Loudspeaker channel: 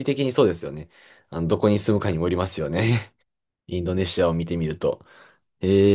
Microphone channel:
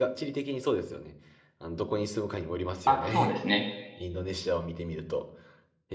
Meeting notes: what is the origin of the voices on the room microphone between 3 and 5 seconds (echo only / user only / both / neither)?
both